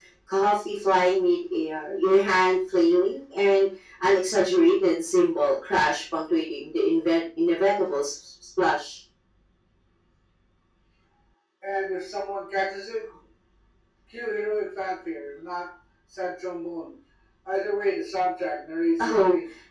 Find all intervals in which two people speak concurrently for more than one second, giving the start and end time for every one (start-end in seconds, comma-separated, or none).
none